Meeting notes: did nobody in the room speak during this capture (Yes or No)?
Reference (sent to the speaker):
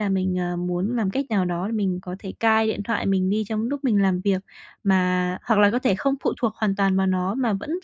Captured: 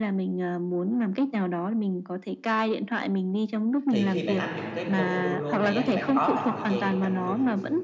No